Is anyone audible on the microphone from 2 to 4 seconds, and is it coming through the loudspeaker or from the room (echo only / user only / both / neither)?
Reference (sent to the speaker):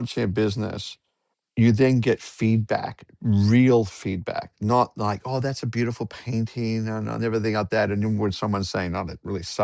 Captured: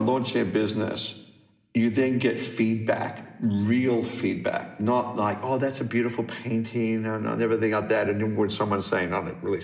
echo only